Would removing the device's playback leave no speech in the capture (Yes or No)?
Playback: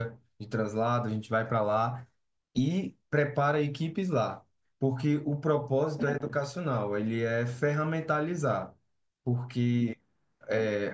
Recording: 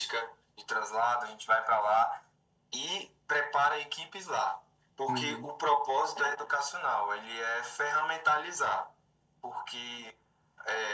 No